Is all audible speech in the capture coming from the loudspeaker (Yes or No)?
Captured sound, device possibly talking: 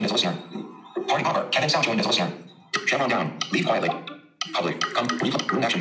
Yes